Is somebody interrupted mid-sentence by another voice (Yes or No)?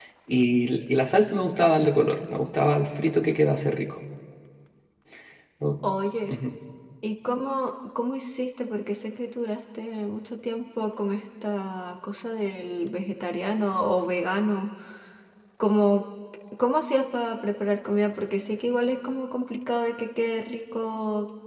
No